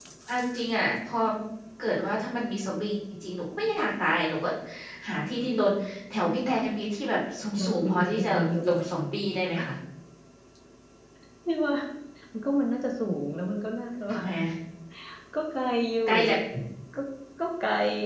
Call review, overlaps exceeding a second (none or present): present